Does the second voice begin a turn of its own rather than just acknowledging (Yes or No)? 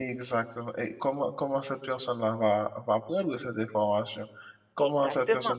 No